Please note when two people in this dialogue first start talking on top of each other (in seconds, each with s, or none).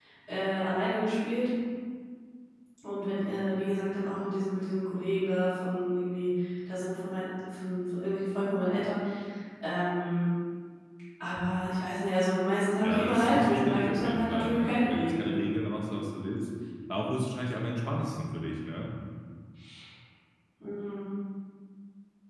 12.8 s